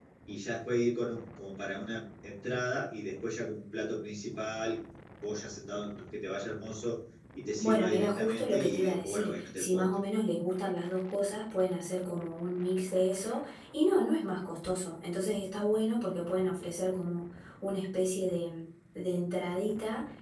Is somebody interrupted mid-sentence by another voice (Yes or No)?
Yes